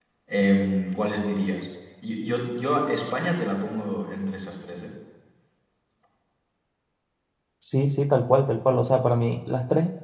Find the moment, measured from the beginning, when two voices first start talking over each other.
none

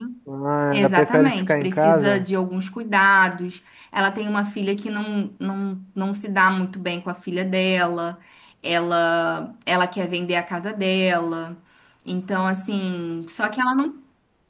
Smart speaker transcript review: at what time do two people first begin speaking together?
0.7 s

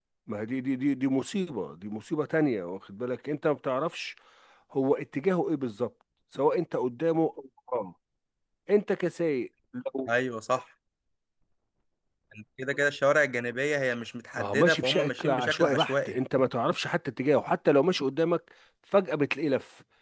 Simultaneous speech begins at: 14.4 s

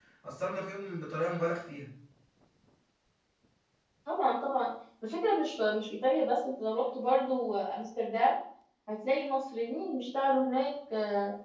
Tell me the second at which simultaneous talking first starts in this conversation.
none

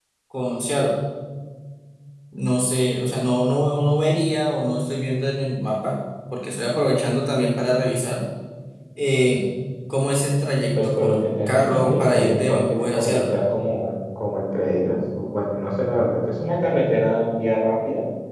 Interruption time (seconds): 10.8 s

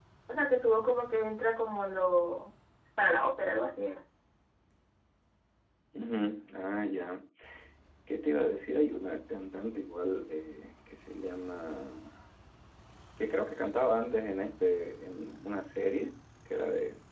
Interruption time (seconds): none

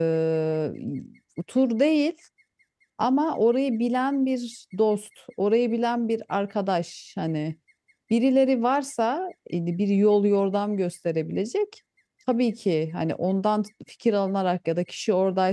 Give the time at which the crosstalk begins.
none

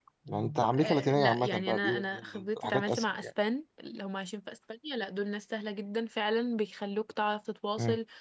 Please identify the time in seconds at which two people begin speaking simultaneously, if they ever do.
0.8 s

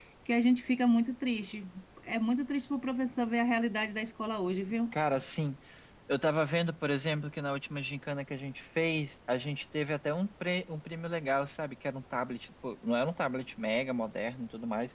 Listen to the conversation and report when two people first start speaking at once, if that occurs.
none

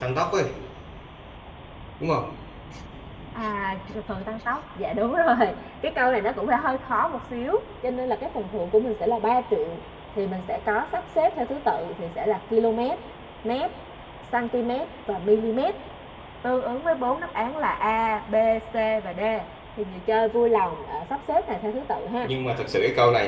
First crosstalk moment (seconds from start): none

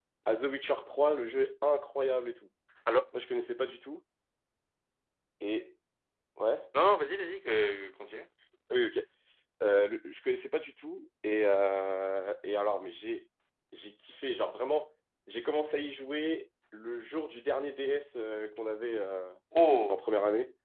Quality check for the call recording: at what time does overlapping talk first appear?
none

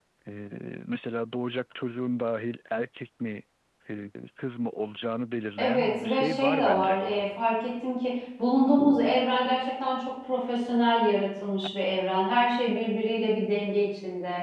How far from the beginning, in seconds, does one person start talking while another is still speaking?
5.6 s

